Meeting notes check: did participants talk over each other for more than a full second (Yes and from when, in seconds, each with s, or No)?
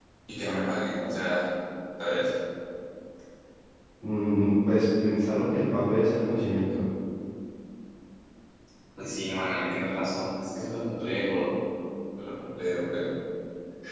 No